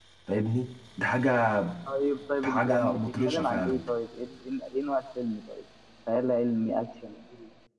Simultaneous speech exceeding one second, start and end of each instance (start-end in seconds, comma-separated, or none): 2.4-3.8